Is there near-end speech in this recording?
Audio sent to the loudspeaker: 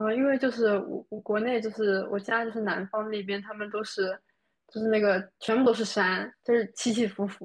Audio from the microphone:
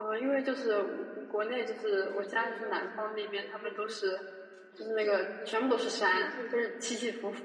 Yes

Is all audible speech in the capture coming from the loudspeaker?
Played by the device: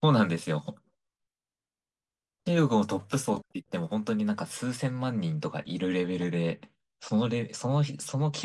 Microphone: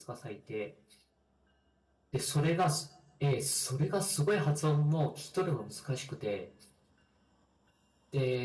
No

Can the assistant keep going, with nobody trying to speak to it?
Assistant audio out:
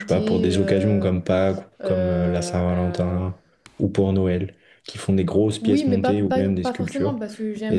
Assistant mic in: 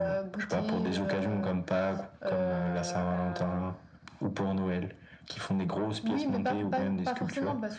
Yes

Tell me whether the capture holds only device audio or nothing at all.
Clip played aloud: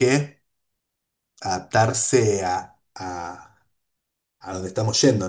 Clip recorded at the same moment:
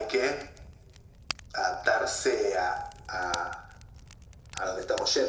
Yes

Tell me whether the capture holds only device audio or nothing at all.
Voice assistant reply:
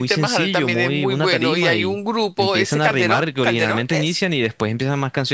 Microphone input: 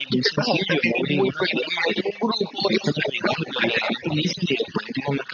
Yes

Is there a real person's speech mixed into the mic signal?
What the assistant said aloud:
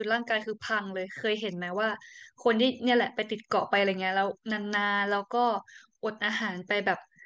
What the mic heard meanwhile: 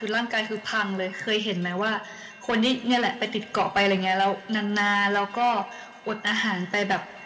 No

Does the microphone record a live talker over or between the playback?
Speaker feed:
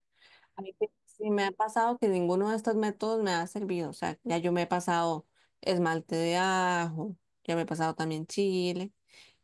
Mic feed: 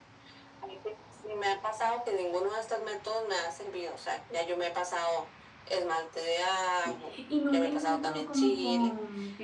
Yes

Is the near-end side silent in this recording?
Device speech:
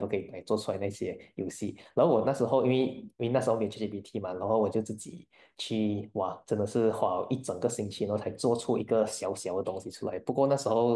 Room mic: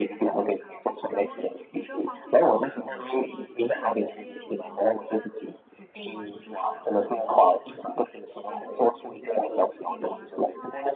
No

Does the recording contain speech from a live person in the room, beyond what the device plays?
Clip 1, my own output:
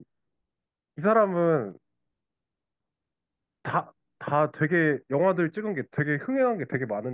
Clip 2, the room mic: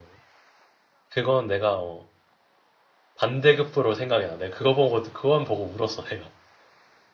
Yes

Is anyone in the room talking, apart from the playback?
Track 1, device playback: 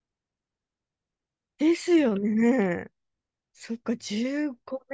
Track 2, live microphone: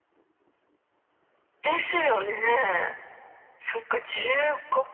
No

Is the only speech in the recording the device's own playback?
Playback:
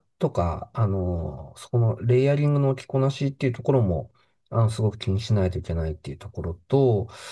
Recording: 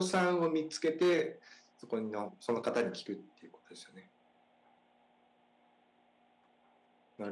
No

